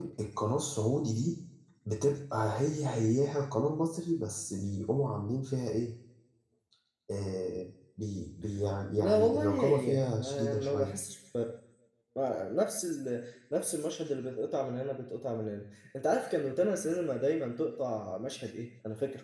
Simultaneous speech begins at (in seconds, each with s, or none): 9.0 s